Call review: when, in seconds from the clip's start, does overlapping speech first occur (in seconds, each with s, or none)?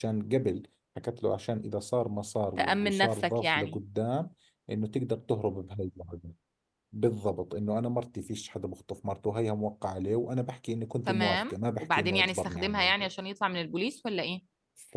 2.6 s